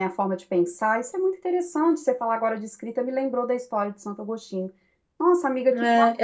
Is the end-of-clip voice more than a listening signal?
Yes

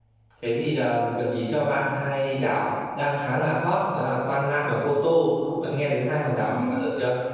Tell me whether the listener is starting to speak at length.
Yes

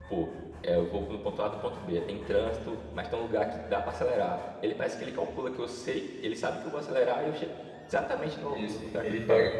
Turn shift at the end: Yes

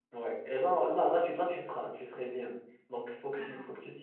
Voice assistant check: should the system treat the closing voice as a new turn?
No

